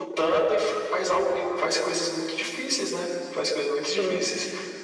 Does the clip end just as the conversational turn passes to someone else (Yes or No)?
No